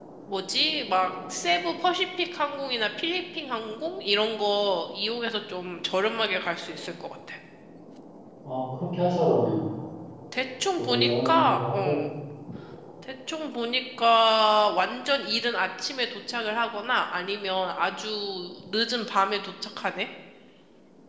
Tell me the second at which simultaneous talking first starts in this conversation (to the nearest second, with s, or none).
11 s